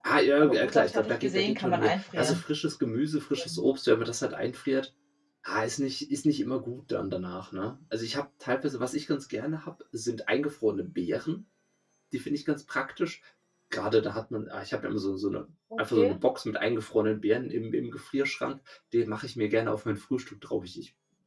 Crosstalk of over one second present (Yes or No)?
Yes